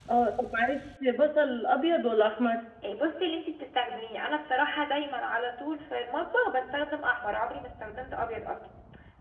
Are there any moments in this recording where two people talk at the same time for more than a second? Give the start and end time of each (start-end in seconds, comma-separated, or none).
none